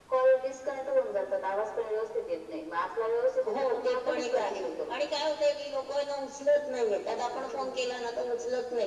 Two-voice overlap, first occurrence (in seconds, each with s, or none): 3.5 s